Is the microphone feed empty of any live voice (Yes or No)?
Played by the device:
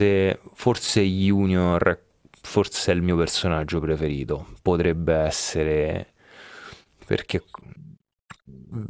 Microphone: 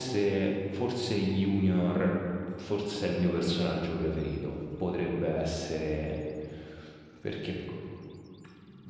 Yes